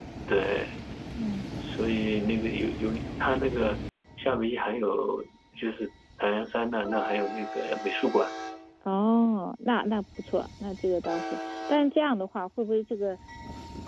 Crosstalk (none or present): none